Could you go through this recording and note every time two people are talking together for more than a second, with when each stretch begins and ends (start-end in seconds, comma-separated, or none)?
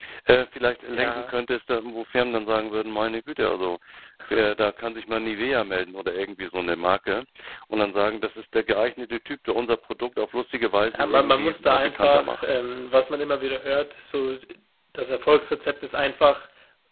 10.9-12.5